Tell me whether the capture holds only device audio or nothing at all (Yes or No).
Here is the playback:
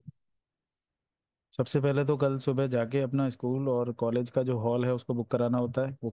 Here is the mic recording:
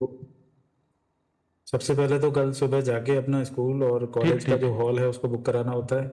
No